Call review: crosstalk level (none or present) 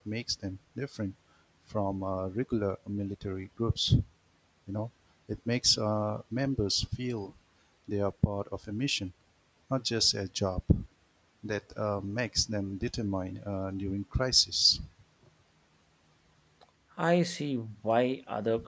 none